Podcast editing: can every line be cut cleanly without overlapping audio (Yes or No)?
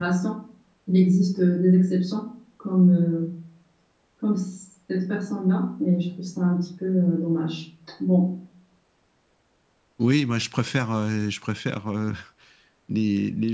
Yes